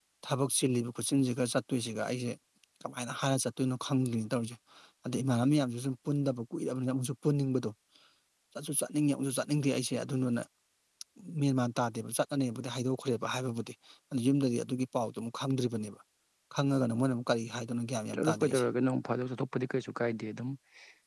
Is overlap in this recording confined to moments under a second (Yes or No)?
Yes